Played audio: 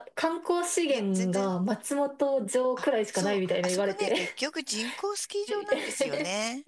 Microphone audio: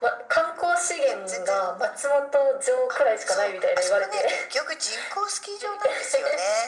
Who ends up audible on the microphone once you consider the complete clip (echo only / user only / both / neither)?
echo only